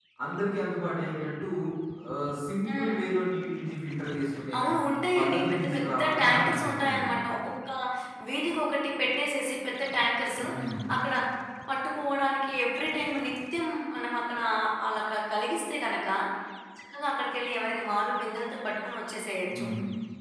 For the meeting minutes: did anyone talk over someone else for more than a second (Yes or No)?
Yes